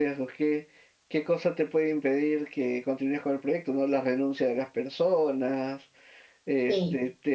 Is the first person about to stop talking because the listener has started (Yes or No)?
No